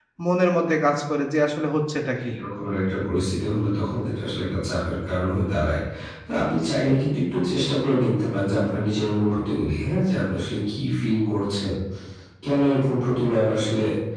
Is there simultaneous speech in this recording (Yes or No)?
No